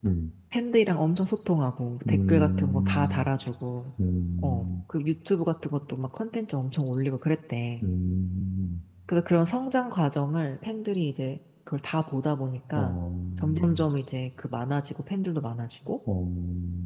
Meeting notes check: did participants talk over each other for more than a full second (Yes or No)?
Yes